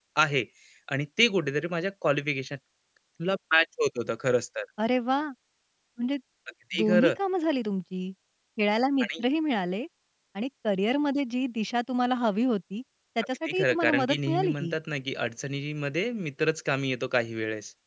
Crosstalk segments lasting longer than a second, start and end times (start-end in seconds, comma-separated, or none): 13.4-14.7